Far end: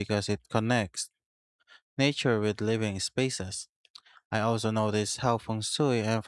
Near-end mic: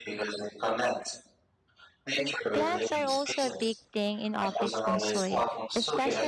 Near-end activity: present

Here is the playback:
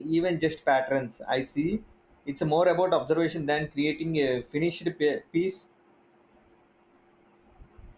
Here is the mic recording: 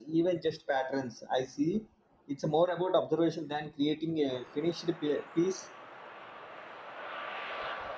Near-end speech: none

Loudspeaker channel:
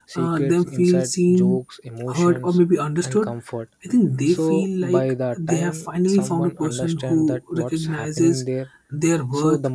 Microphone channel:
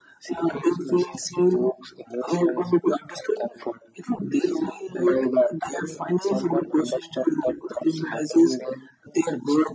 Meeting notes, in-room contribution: none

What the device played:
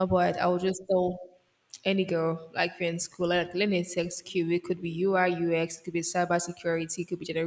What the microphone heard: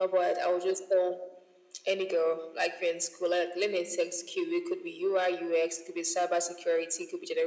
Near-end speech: none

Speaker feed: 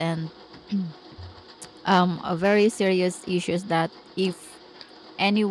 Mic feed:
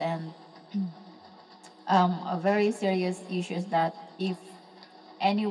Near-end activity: none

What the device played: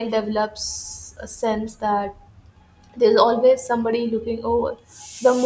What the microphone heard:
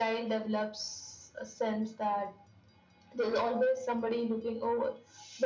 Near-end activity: none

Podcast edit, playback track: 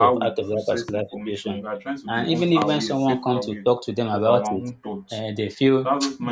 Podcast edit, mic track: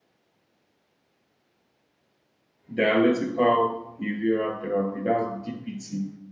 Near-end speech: present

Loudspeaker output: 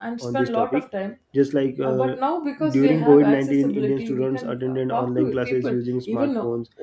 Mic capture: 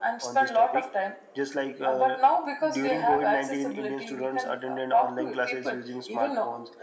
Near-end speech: none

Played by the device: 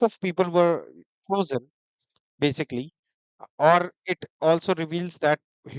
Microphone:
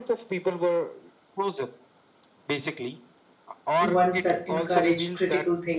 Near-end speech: present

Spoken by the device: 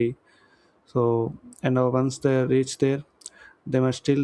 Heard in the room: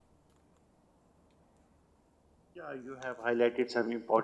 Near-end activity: present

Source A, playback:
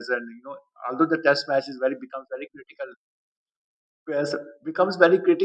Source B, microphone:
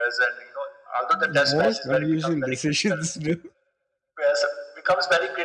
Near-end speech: present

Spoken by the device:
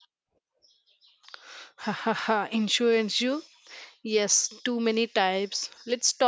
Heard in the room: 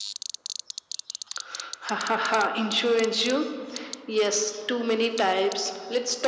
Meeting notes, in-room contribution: none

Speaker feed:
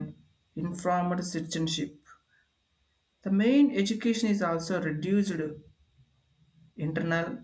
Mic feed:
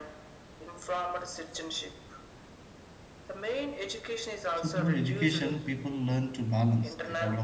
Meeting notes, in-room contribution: present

